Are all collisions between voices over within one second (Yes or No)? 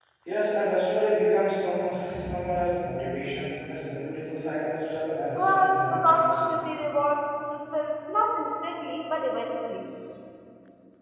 No